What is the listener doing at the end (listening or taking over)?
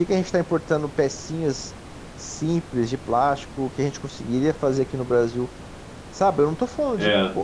listening